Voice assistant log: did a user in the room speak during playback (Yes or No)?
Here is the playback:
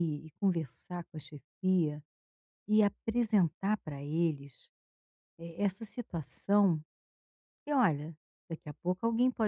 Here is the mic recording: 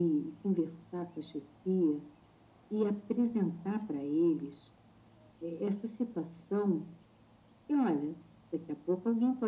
No